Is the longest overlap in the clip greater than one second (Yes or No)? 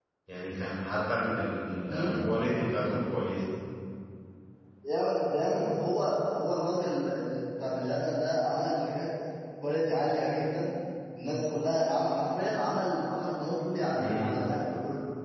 No